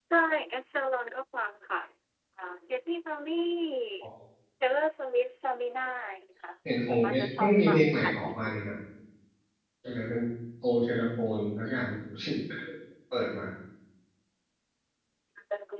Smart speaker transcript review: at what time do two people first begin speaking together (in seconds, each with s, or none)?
6.9 s